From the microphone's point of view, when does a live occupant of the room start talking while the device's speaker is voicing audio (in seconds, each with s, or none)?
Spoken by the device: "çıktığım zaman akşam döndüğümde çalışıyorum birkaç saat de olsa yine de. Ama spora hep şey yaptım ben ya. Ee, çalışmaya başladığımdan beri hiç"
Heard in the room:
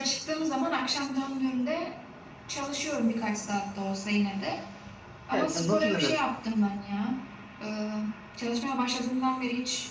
5.3 s